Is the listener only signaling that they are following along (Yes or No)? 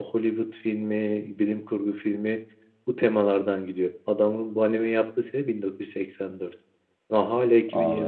Yes